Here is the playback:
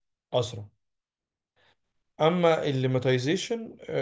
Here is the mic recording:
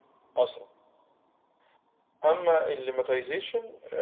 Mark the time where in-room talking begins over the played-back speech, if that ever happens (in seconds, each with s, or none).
none